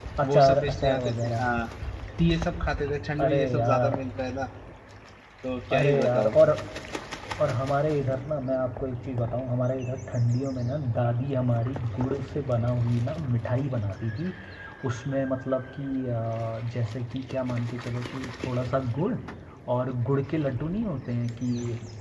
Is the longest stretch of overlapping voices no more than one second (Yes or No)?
No